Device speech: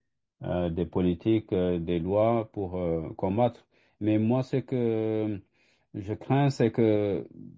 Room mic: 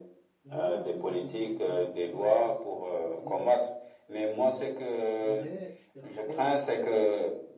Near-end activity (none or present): present